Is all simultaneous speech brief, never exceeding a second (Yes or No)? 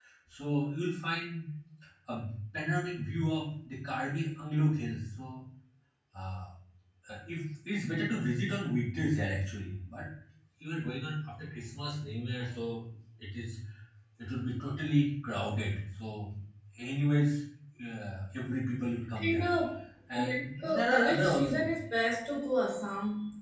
No